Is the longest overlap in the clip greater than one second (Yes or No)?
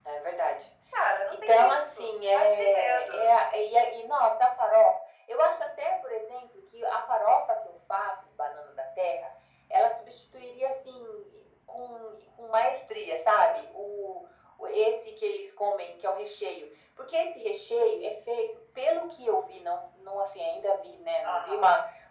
Yes